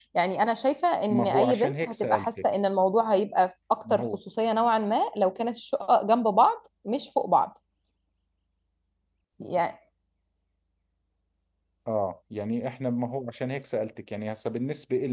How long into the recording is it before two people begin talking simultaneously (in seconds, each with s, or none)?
1.1 s